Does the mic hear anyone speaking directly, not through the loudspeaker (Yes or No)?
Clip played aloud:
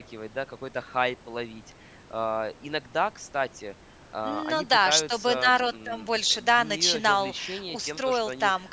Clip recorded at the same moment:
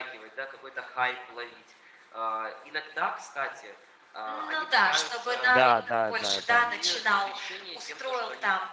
Yes